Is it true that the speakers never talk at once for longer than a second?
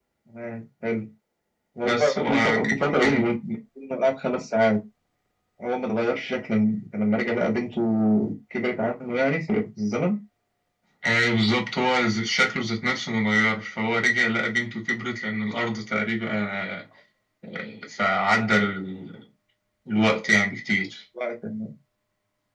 No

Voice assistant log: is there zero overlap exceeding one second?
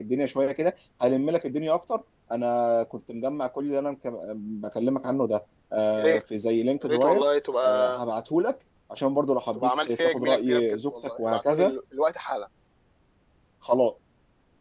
No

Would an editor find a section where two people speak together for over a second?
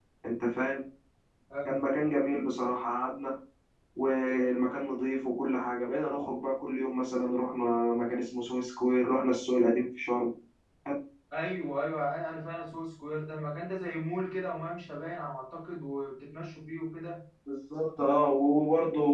No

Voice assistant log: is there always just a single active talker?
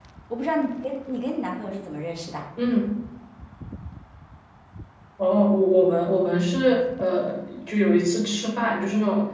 Yes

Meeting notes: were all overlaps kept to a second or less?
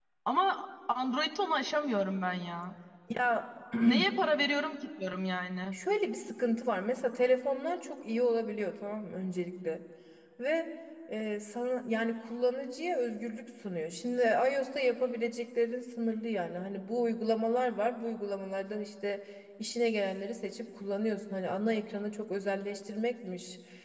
Yes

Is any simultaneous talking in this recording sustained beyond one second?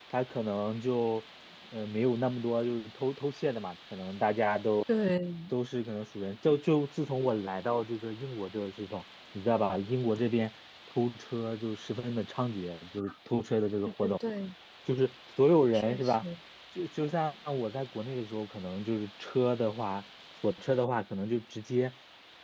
No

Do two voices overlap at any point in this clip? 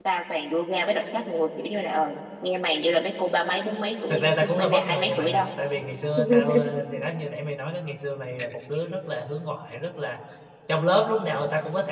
Yes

